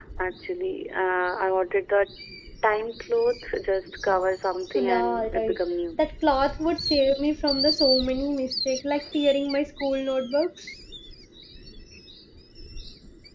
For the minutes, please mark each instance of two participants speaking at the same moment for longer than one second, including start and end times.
4.8-6.0

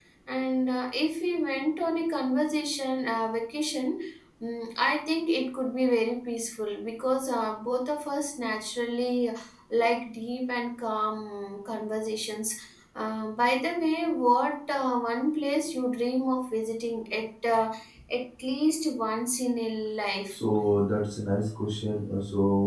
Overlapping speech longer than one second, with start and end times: none

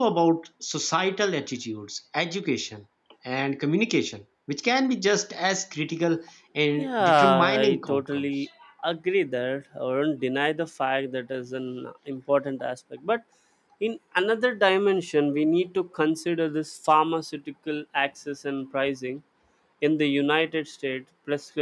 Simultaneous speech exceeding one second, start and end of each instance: 6.8-8.3

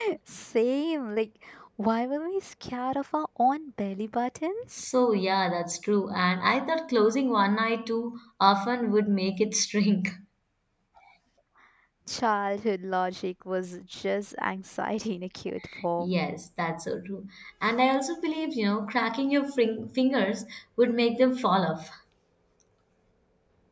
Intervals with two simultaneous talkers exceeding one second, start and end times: none

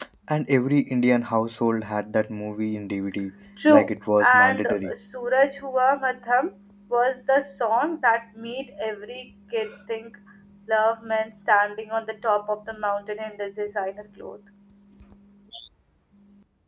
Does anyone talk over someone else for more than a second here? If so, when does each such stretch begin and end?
3.7-4.9

